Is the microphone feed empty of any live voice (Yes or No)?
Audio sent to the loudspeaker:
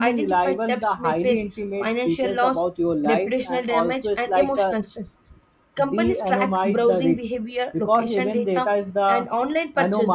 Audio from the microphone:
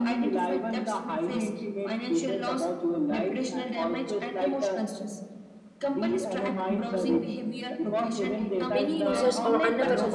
No